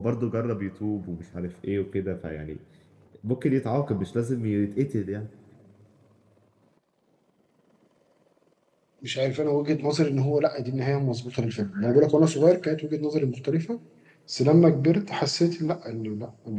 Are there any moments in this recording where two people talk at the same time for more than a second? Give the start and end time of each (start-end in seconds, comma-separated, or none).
none